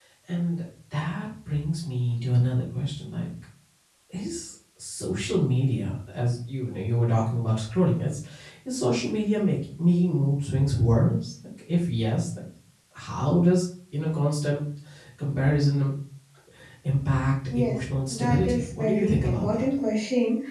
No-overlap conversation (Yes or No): No